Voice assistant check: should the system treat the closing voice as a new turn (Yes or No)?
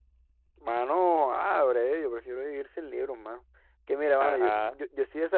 No